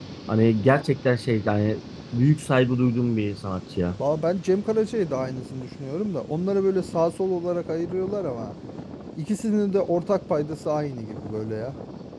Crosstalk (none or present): none